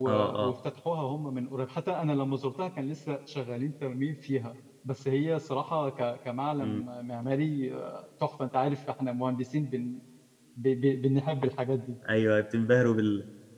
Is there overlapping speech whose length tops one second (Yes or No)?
No